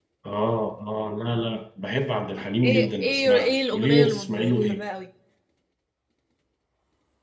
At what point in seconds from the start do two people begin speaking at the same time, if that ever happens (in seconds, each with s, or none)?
2.6 s